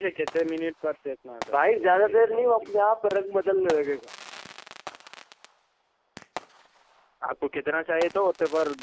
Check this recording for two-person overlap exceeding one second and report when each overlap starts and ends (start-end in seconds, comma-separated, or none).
1.5-2.7